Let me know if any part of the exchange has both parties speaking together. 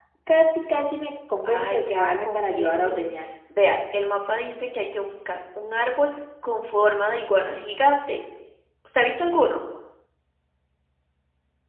Yes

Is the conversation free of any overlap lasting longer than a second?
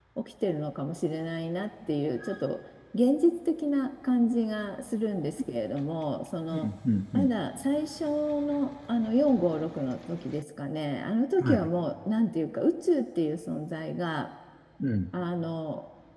Yes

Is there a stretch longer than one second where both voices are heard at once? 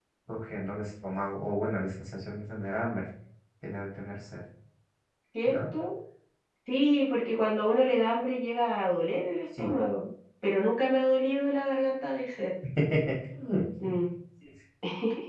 No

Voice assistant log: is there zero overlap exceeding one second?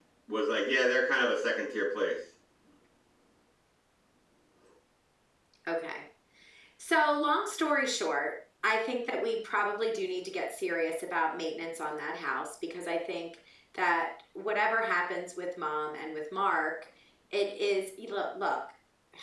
Yes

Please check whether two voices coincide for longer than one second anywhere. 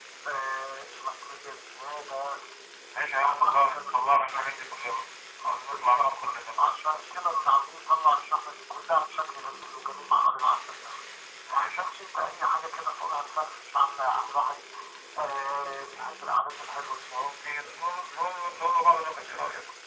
Yes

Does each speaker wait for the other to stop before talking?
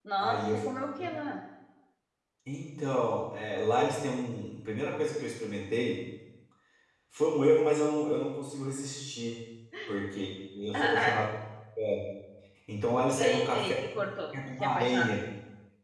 No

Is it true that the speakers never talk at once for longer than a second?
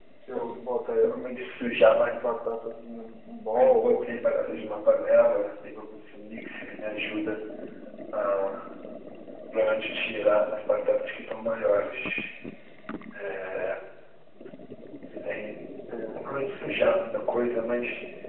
No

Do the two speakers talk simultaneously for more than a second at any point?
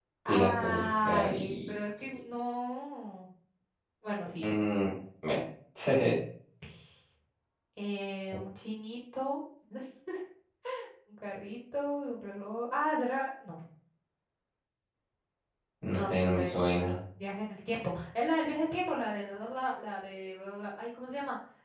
Yes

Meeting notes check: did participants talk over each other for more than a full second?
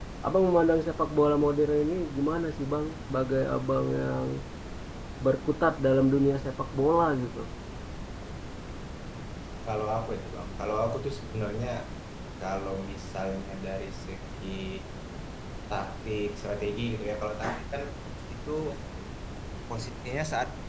No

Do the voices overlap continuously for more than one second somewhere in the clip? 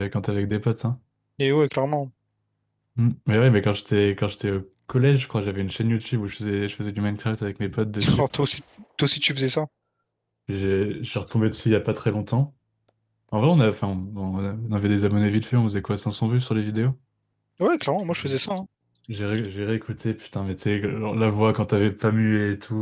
No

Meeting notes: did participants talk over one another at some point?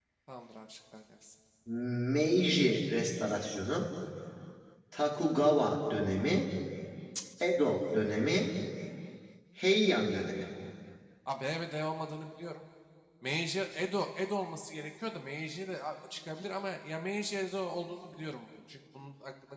No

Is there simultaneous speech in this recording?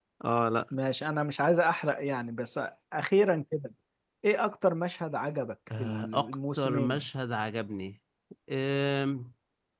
Yes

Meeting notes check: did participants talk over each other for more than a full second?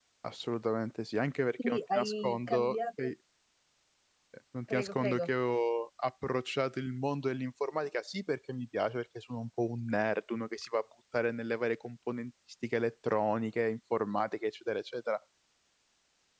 Yes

